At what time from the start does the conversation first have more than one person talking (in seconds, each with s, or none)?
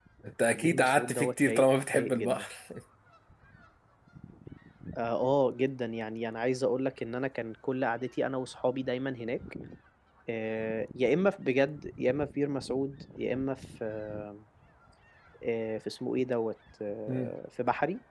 0.5 s